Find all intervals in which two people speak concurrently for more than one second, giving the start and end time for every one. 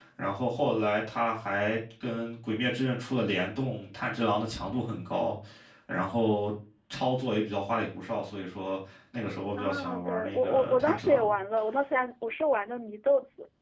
9.6-11.3

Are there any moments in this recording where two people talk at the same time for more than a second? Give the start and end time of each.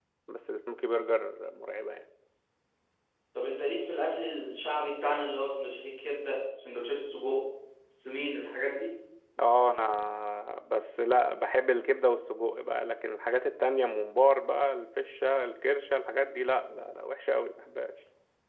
none

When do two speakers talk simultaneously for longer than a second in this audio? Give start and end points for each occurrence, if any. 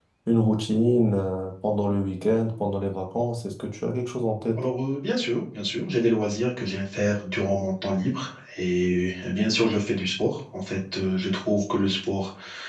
none

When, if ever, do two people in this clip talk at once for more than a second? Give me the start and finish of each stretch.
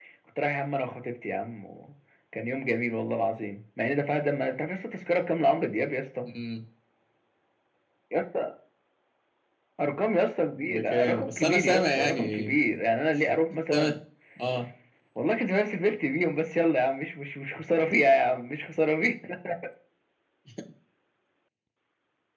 10.6-12.5

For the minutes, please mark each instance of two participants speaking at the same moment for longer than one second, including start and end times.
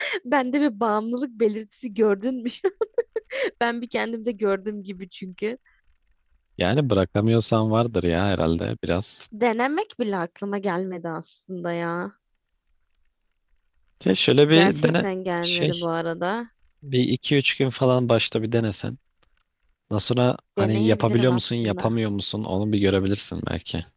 20.6-21.9

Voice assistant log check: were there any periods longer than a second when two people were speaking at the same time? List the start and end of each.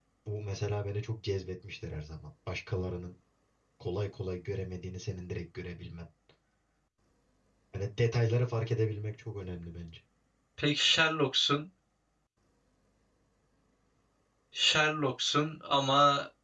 none

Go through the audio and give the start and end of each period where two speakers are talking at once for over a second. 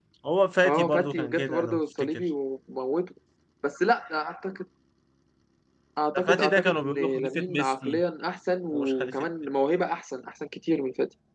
0.7-2.2, 6.2-8.0

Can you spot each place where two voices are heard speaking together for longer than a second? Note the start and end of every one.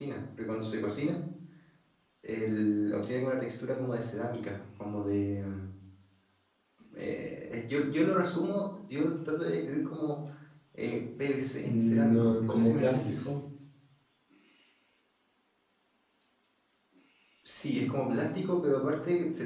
11.6-13.3

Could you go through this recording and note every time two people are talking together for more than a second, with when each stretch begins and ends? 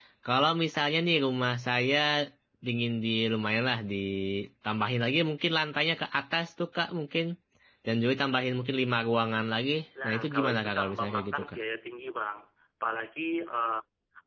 10.0-11.6

